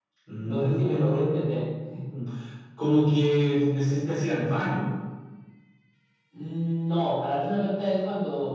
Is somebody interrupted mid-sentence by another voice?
Yes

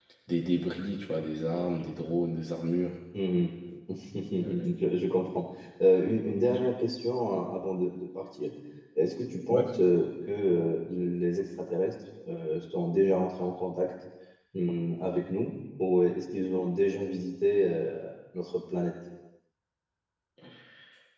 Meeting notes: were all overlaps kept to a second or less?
Yes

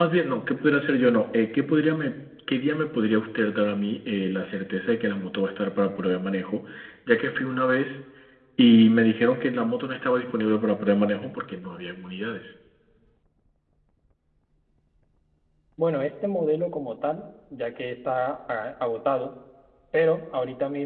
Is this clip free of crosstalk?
Yes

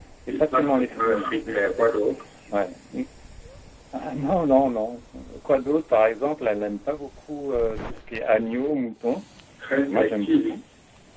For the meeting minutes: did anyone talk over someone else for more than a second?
Yes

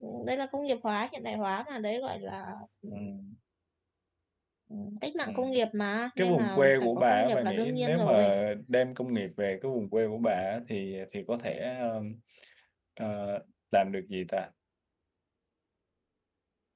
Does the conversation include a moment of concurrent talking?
Yes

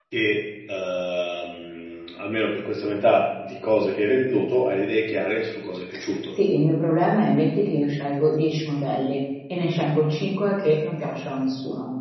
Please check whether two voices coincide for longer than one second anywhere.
No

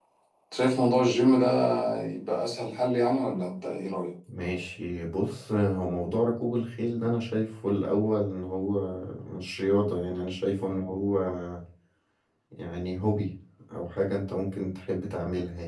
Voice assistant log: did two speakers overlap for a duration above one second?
No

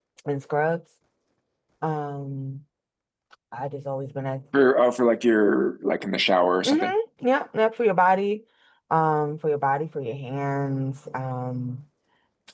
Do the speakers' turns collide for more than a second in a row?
No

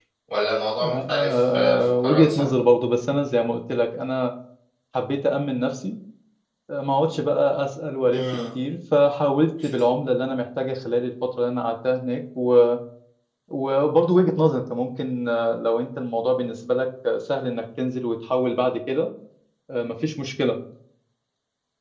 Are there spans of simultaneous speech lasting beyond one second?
Yes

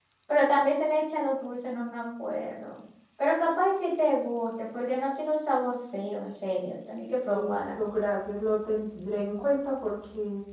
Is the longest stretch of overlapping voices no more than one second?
Yes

